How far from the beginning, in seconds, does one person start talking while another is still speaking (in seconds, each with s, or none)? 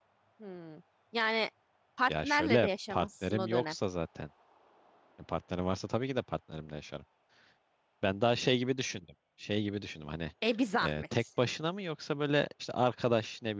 2.1 s